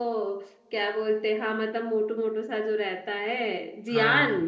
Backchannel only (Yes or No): No